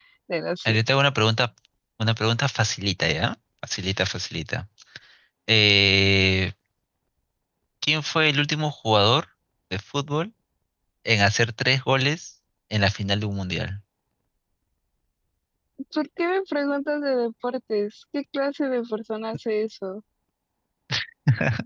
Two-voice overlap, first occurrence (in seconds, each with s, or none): none